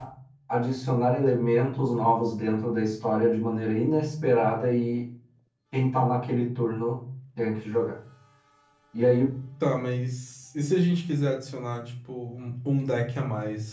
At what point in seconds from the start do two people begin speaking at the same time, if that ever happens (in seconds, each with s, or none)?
none